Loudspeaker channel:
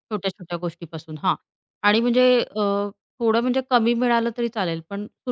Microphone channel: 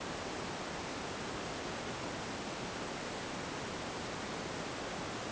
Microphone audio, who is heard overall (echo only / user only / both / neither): neither